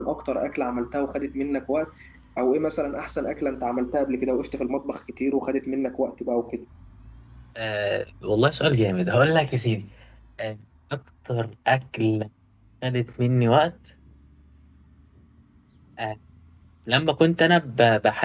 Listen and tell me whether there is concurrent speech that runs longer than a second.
No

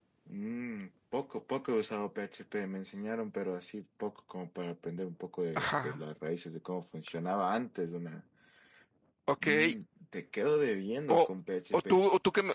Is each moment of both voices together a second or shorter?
Yes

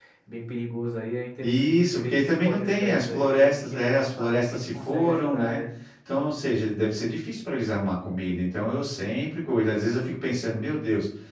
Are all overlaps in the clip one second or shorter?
No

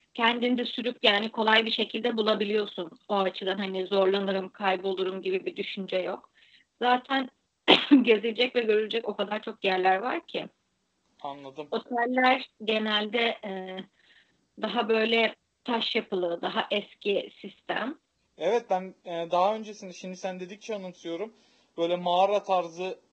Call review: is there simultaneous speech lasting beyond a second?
No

